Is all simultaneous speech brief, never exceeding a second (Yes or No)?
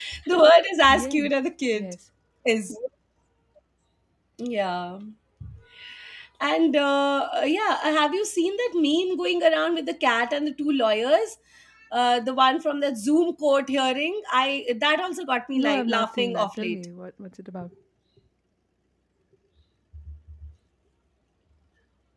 No